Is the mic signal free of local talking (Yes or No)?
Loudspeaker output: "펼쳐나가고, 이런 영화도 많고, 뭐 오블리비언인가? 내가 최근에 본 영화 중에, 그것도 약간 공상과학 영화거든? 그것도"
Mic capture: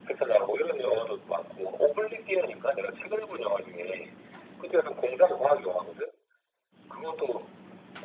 Yes